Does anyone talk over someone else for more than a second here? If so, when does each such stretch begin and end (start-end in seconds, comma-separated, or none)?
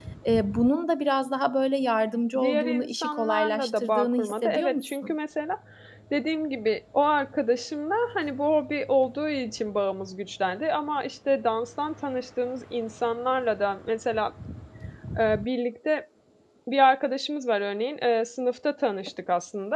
2.4-5.1